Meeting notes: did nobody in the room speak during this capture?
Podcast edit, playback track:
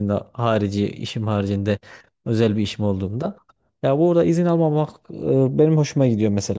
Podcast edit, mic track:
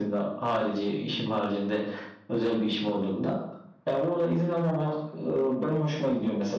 Yes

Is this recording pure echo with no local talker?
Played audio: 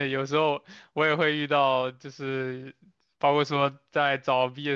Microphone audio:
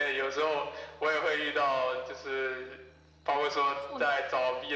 No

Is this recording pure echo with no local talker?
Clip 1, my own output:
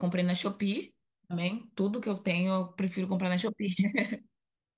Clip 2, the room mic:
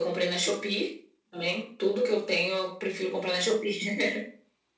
Yes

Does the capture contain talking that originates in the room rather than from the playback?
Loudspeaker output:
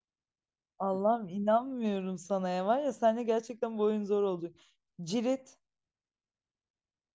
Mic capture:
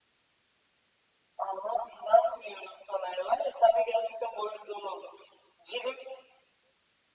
No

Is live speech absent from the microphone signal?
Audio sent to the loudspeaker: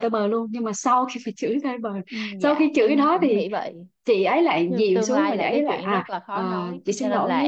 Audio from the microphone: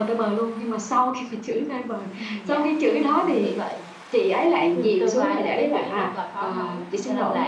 Yes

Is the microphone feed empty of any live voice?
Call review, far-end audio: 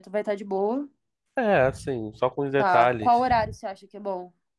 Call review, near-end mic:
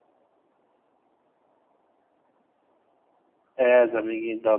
No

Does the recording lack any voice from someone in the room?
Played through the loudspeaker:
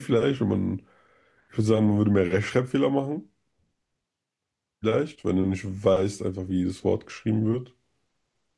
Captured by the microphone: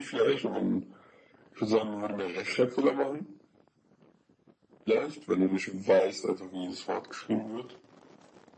Yes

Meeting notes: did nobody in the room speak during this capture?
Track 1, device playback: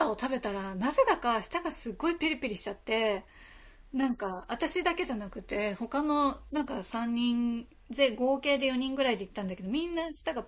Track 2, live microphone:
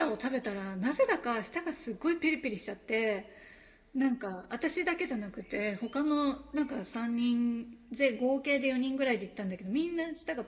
Yes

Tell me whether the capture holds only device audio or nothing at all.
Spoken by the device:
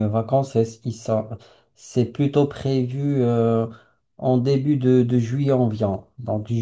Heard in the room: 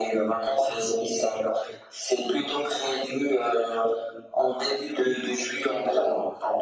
Yes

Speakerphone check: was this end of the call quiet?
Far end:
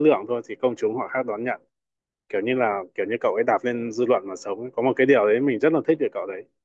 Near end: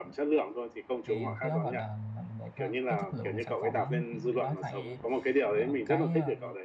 No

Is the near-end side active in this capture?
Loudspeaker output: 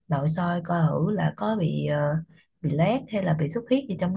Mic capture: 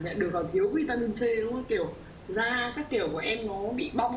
Yes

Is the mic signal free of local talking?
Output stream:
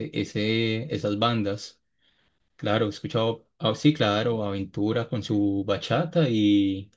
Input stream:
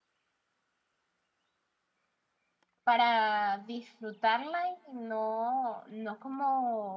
No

